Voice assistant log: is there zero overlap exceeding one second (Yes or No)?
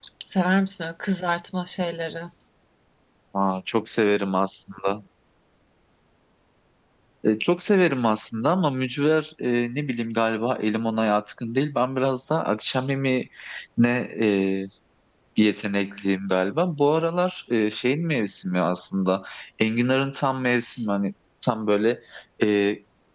Yes